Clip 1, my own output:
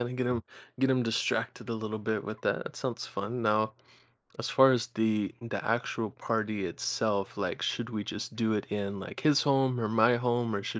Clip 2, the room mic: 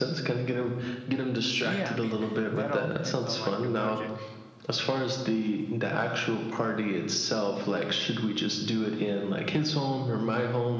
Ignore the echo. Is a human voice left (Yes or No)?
Yes